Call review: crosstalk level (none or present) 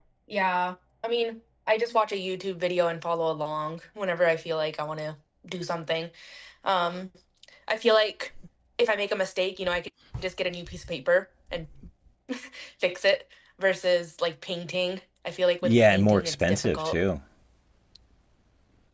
present